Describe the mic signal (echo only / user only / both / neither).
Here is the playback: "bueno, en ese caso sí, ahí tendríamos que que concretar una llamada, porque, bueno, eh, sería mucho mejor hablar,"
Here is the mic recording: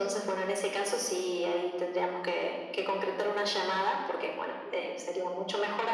echo only